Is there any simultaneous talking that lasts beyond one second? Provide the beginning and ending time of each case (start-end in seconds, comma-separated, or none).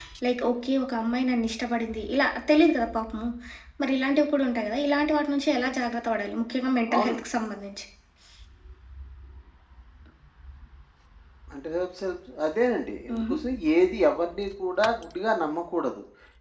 none